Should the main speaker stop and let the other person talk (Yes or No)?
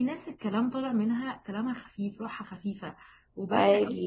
No